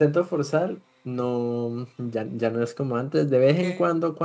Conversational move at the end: listening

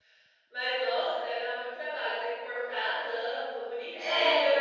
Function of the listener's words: taking over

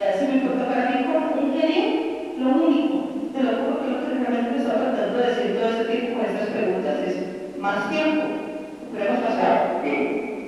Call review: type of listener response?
taking over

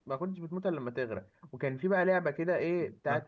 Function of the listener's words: listening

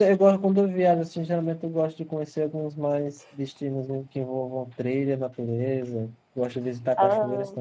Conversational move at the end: listening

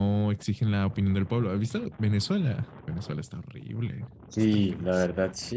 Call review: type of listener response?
taking over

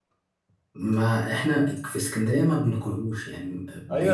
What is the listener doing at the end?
taking over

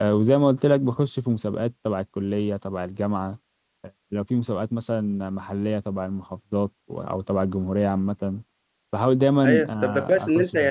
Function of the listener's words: taking over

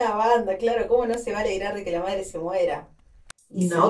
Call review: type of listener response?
taking over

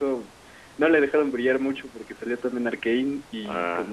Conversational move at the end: listening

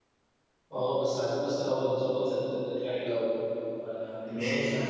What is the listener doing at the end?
taking over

